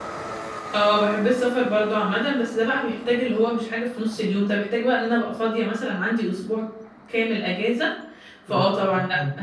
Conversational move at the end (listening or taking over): taking over